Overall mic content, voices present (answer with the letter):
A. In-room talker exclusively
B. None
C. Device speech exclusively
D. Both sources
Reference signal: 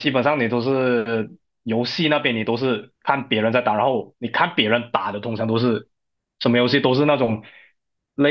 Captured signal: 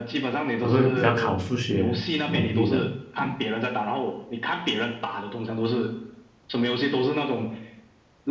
D